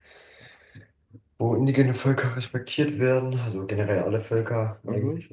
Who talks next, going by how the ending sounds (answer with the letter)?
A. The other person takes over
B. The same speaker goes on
A